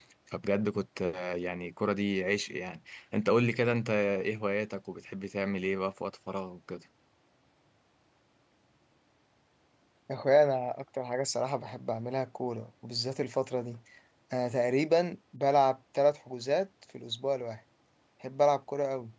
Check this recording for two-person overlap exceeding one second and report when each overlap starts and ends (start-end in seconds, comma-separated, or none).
none